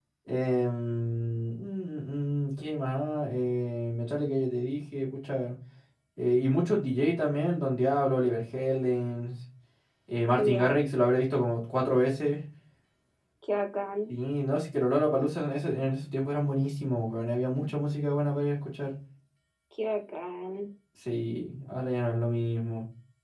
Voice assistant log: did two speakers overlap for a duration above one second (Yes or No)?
No